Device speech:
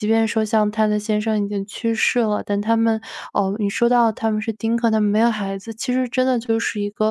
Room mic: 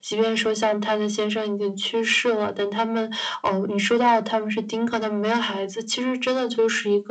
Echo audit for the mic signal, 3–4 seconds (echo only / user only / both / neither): echo only